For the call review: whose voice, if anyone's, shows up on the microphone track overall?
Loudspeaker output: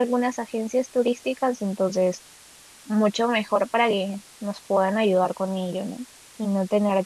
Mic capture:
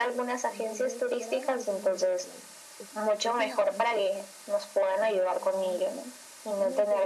both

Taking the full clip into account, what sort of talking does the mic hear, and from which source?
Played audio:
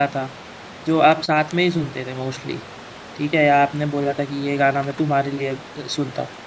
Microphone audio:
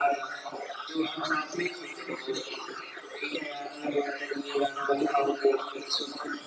echo only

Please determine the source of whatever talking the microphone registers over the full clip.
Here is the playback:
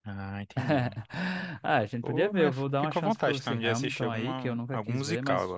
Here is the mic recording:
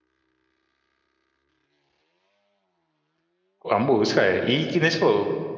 user only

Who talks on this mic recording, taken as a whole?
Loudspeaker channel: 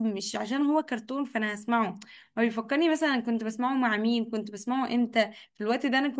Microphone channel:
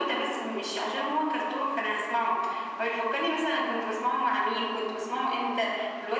echo only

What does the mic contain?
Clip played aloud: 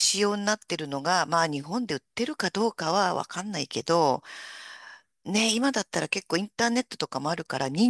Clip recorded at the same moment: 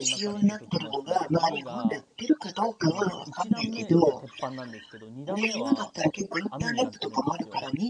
both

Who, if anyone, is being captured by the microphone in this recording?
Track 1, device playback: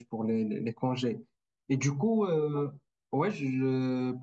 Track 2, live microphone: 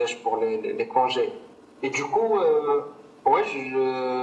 echo only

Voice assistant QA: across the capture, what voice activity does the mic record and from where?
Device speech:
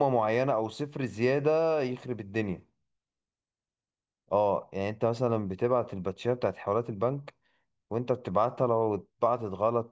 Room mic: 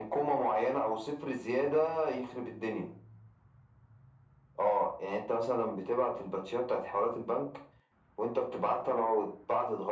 echo only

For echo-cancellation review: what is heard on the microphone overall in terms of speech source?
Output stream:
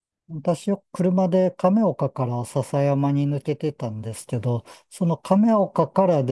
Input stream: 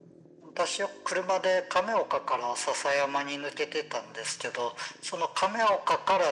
echo only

